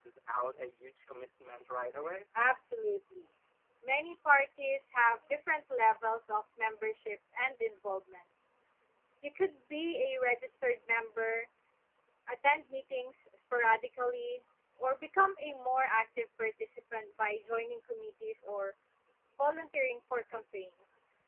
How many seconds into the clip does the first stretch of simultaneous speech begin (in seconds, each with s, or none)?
none